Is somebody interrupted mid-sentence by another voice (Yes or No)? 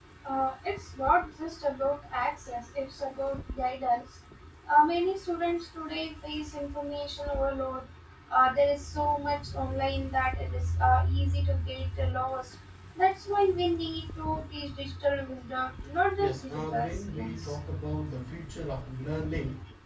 Yes